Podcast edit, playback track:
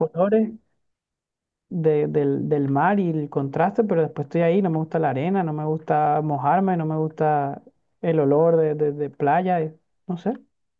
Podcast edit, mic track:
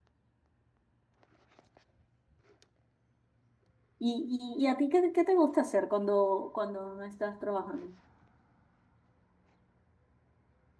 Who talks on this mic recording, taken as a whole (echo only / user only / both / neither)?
user only